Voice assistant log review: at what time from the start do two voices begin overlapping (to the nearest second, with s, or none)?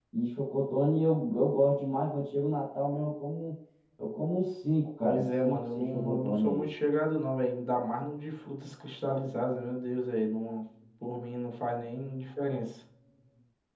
5 s